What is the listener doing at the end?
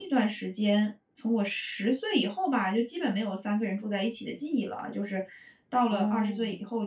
listening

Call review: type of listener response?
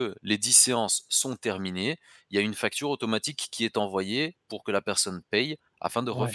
taking over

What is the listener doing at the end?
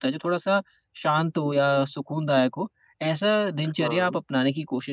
listening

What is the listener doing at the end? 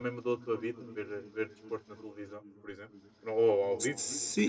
taking over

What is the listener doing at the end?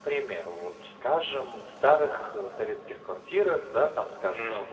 listening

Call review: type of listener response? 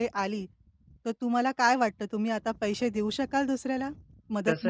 taking over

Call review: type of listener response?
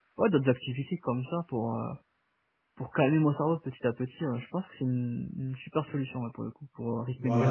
taking over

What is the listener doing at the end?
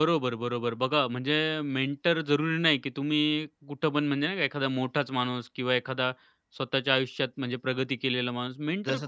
taking over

